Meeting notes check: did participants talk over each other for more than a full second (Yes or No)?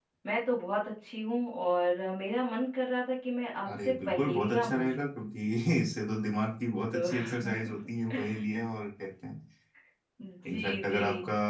Yes